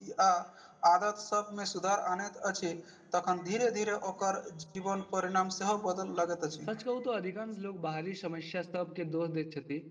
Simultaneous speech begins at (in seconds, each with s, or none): none